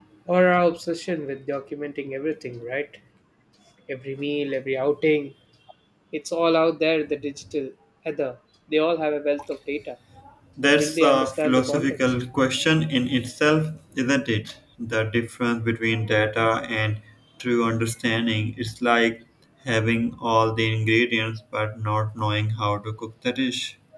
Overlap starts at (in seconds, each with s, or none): 10.6 s